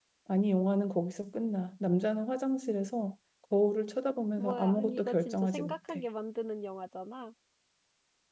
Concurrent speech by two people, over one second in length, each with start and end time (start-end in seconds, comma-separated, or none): 4.4-6.0